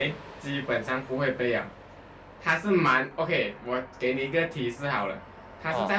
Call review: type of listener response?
listening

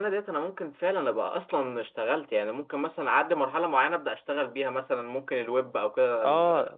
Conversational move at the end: taking over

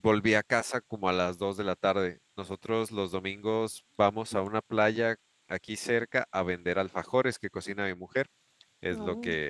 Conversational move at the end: listening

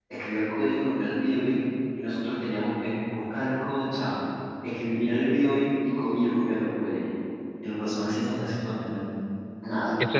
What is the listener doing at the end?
taking over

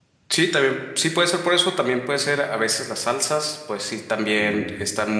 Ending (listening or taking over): listening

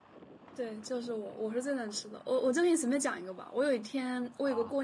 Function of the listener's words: listening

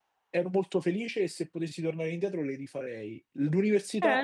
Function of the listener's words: taking over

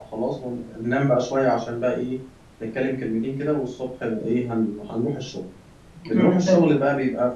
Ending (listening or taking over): listening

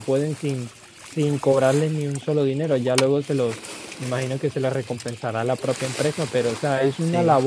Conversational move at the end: listening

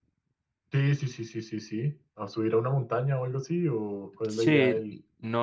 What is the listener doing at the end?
taking over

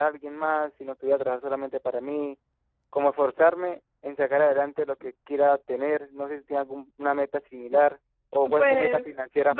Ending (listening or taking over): taking over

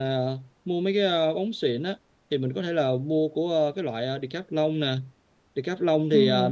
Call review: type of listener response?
listening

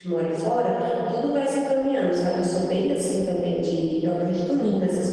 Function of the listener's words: listening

